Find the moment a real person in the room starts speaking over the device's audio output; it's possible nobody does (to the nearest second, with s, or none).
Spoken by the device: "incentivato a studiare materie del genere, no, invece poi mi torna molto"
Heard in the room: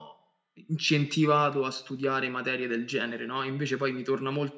none